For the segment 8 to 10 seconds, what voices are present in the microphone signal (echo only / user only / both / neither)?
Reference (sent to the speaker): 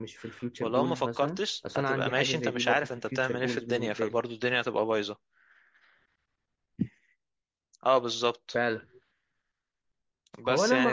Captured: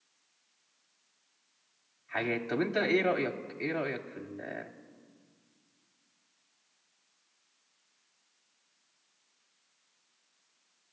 neither